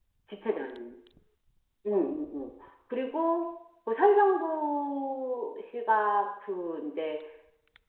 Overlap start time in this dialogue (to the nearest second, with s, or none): none